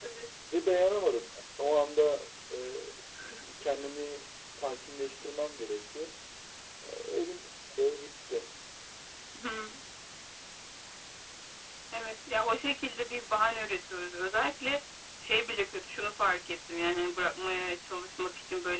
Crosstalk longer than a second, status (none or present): none